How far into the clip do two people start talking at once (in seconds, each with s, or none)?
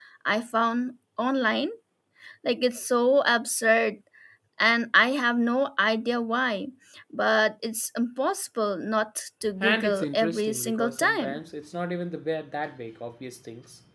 9.6 s